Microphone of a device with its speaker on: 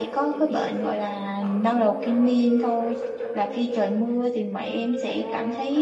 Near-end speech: present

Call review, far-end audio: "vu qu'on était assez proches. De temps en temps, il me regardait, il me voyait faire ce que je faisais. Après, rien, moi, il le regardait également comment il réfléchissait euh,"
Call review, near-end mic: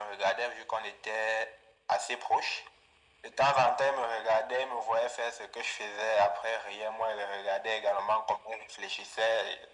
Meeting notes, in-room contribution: none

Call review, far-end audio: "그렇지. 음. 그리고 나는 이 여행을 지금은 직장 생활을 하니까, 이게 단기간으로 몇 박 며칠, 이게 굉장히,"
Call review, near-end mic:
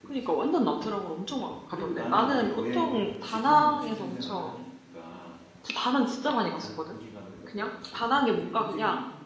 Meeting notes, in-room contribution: present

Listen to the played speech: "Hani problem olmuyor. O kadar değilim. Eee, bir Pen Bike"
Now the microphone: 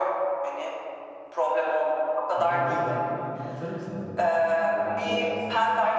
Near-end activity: present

